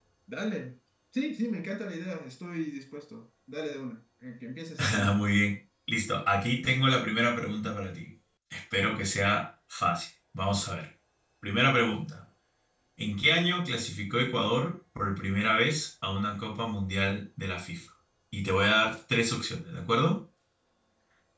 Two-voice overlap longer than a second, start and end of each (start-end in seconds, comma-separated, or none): none